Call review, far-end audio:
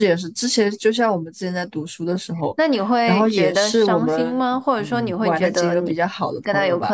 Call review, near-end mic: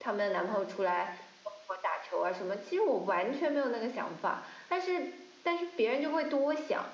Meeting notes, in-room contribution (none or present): present